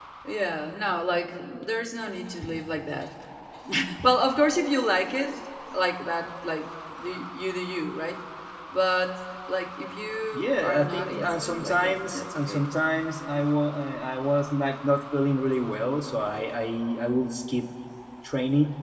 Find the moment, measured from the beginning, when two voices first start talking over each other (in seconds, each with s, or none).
10.3 s